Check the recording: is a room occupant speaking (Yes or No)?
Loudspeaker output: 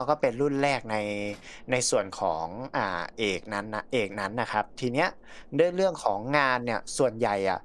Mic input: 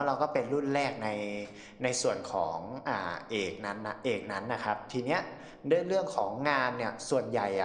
No